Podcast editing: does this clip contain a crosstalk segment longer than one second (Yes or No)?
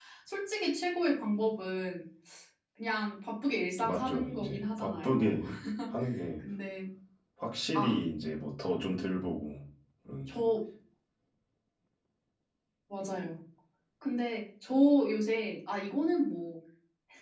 Yes